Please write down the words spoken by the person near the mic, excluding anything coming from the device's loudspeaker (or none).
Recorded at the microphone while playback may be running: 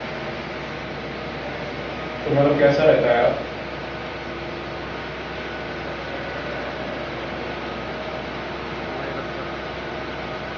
तो मतलब कैसा रहता है यार